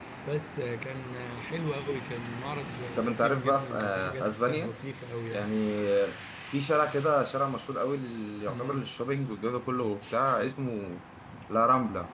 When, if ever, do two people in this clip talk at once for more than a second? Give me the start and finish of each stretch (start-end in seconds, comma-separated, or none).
3.0-4.7